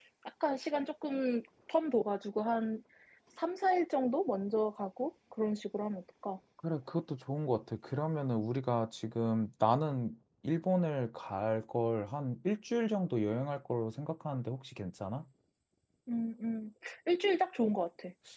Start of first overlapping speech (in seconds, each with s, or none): none